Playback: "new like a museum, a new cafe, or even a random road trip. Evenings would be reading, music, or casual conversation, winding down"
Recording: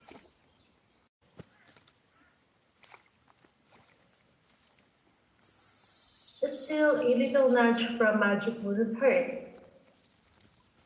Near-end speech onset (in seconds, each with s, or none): 6.4 s